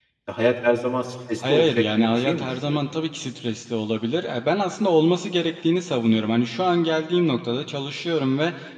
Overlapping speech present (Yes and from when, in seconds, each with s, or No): Yes, from 1.4 s